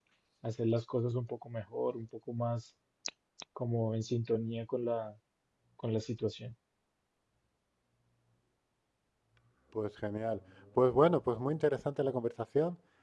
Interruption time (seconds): none

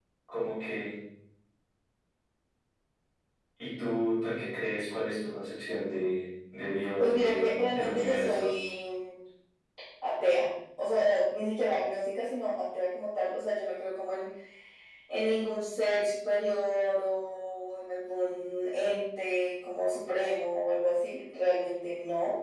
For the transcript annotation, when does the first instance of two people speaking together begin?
7 s

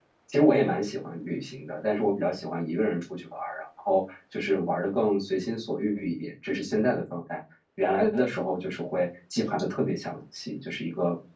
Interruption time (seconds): none

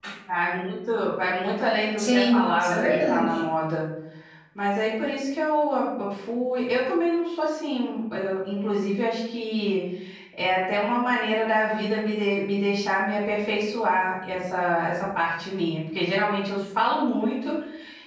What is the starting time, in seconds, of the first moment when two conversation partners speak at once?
2 s

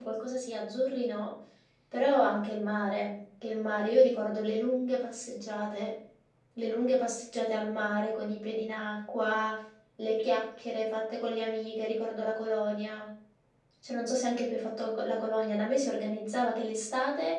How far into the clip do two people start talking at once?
none

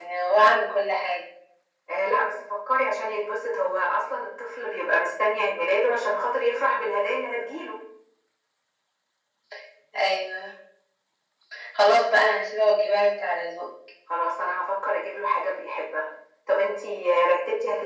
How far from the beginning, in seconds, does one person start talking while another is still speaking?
none

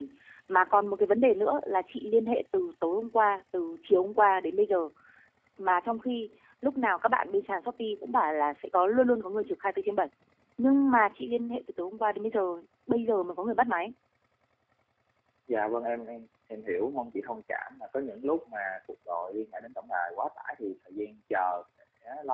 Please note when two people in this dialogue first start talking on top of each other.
none

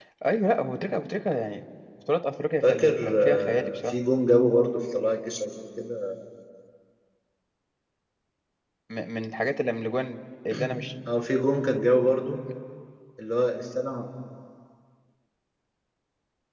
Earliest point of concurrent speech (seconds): 3 s

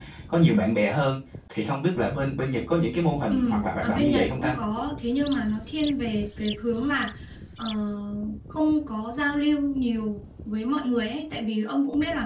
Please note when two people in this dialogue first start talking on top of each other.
3 s

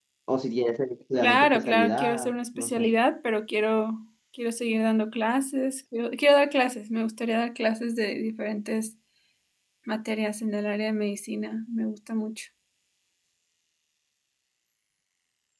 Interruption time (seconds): 1 s

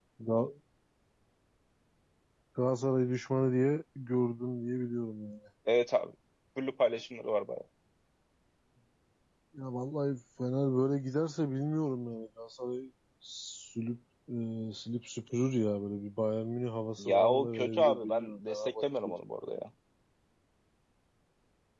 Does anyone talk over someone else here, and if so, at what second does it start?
17 s

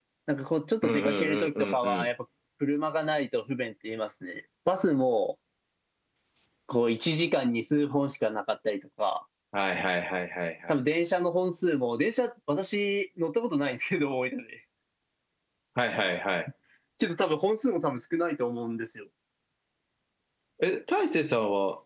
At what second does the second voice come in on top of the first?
1 s

